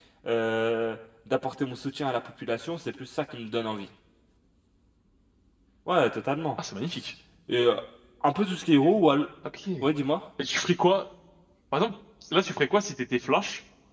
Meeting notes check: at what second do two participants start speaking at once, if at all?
none

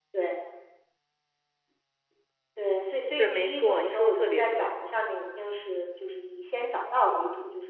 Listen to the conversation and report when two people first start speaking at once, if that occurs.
3.2 s

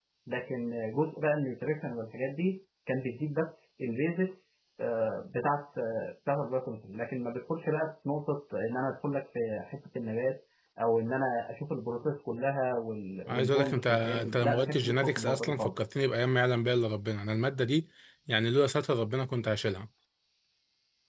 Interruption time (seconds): 13.3 s

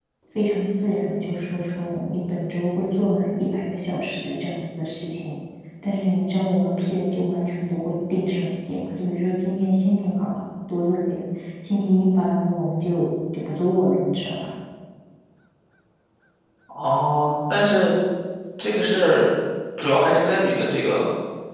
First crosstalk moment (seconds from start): none

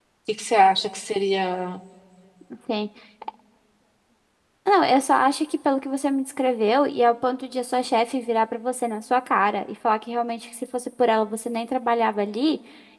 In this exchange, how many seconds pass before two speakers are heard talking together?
none

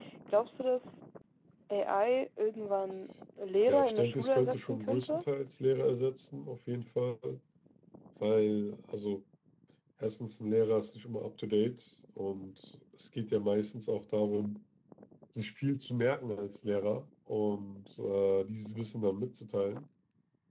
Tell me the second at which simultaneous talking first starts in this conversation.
3.7 s

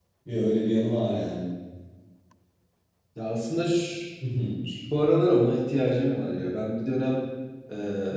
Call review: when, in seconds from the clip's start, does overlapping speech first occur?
none

